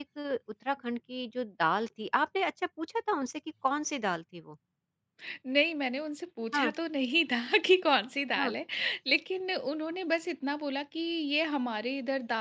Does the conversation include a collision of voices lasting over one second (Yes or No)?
No